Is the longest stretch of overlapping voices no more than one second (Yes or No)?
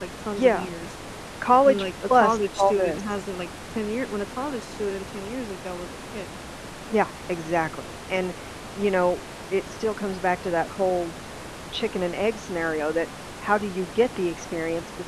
No